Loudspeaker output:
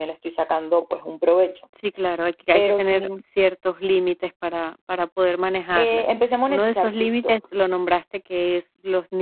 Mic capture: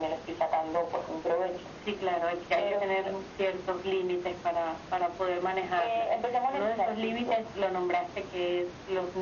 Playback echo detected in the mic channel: Yes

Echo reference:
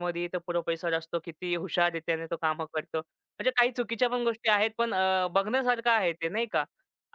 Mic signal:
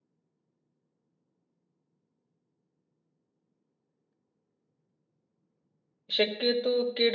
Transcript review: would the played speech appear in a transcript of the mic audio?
No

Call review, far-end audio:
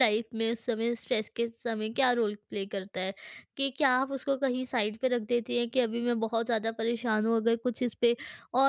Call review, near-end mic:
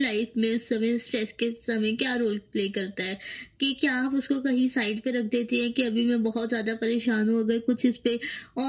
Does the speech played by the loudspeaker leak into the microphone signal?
Yes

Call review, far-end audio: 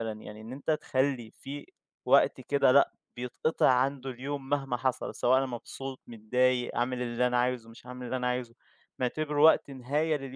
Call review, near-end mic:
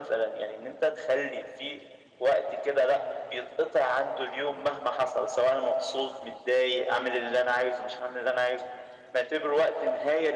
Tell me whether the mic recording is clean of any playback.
No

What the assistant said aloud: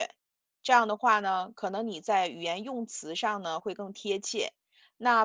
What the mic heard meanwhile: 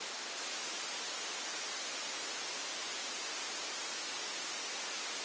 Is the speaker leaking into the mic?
No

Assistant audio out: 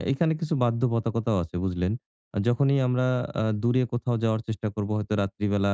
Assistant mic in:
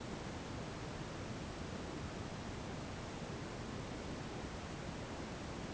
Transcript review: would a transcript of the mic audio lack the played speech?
Yes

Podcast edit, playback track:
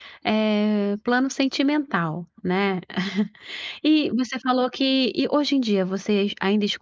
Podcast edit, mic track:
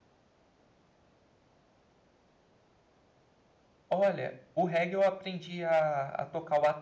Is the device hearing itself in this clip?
No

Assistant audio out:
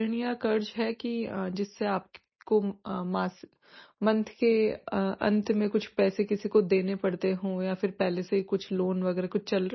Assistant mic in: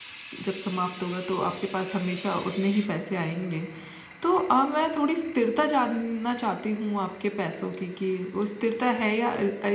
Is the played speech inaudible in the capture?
Yes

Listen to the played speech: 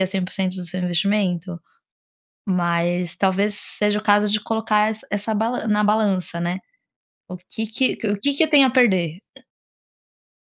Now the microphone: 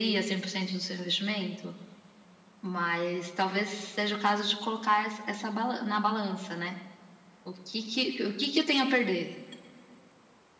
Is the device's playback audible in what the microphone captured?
Yes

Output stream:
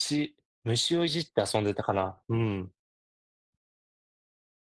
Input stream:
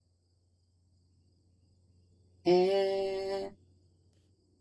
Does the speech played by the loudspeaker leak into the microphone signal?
No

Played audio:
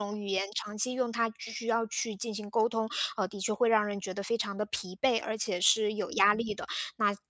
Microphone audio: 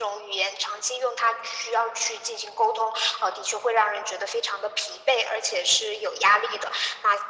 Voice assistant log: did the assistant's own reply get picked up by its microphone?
Yes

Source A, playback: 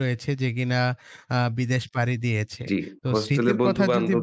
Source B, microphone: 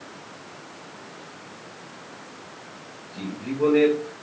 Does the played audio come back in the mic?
No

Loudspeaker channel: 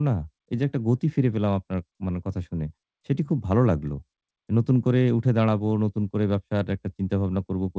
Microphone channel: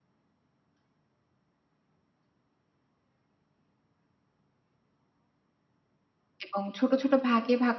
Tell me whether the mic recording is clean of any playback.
Yes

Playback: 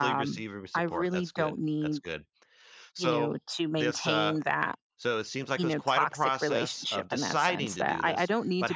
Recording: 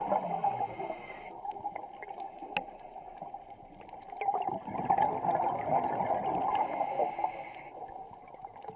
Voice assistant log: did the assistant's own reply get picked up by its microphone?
No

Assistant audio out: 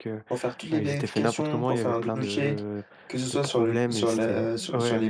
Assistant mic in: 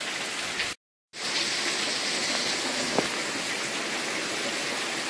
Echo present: No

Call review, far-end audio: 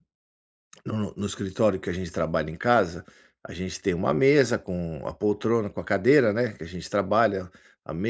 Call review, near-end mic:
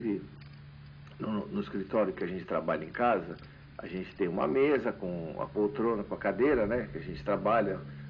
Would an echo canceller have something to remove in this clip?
Yes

